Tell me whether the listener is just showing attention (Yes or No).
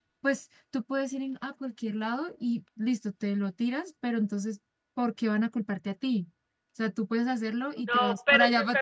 No